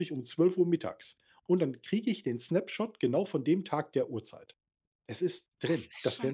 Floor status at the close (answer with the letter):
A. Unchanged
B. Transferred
B